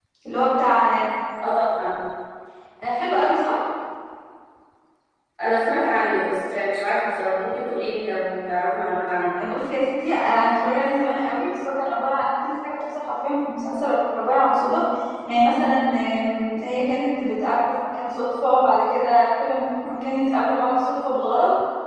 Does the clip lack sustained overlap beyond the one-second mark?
Yes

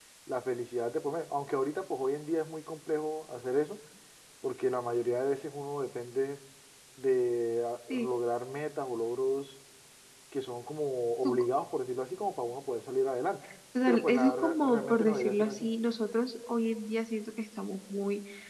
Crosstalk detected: Yes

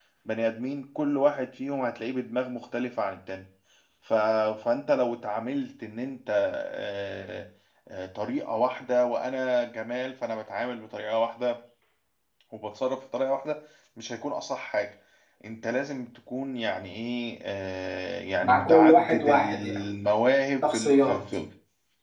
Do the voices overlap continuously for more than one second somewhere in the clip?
Yes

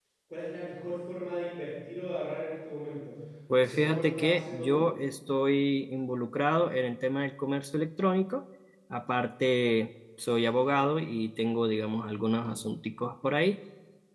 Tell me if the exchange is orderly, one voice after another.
No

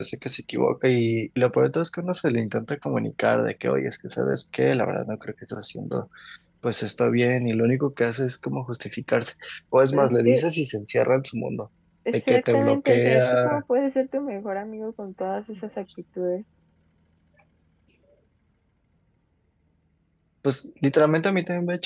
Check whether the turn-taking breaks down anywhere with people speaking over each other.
Yes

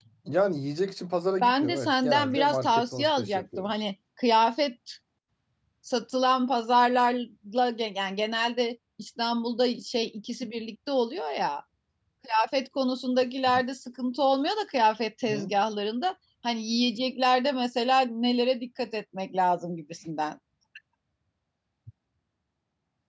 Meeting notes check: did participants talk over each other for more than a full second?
Yes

